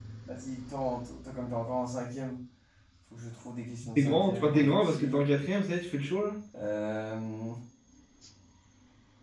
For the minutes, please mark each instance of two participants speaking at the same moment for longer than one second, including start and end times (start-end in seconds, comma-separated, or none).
4.0-5.2